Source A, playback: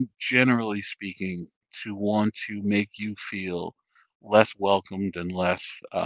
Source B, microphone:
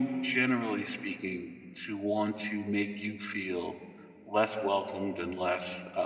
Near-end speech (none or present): none